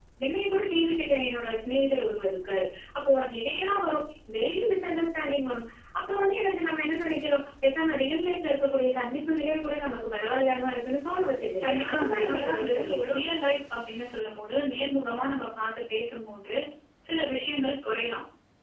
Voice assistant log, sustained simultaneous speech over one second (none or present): present